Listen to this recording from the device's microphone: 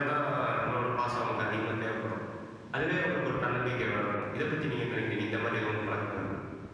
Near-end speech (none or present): none